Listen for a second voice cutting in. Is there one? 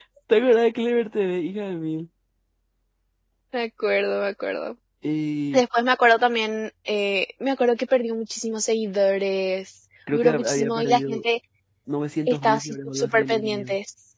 Yes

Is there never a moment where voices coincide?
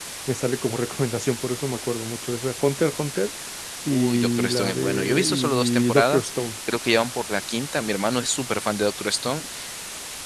No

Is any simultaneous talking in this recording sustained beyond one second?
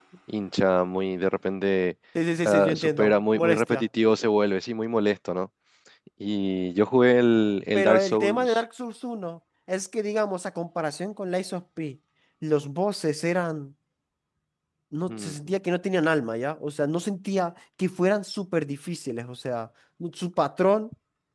Yes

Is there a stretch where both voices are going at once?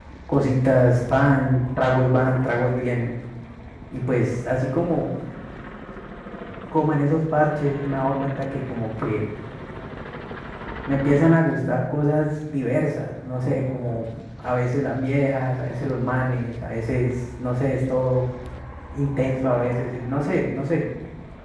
No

